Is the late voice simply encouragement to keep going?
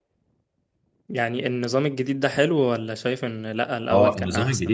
No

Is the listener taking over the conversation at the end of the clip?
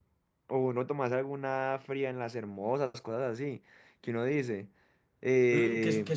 Yes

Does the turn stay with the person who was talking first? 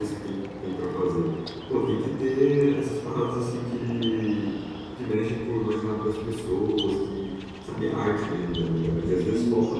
Yes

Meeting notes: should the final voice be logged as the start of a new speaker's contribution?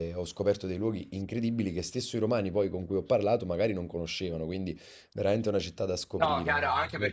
Yes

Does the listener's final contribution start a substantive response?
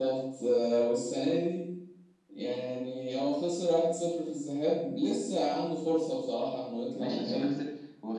Yes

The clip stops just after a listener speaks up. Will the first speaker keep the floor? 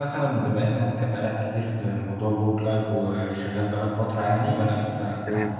No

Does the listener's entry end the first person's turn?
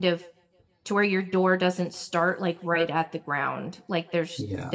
No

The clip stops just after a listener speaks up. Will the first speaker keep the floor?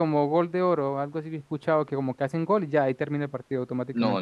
No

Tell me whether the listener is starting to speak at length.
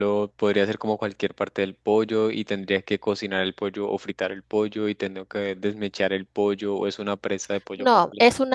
Yes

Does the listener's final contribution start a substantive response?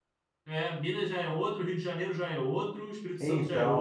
No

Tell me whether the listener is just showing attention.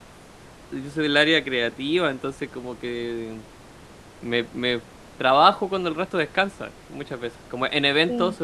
Yes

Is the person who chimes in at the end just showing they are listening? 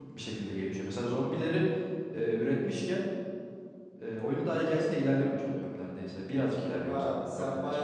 No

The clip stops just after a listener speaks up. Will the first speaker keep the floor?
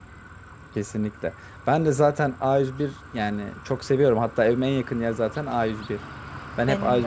Yes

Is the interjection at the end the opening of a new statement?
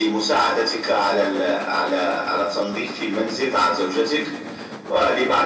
No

